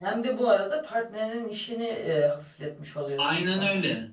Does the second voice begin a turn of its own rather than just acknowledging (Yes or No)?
Yes